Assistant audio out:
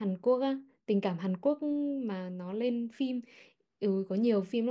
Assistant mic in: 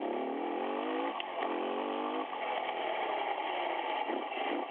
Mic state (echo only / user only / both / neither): neither